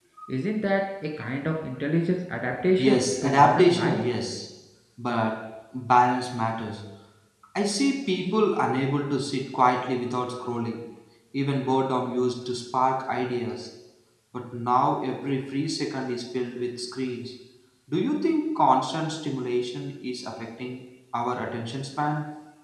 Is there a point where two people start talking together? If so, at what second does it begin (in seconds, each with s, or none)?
2.8 s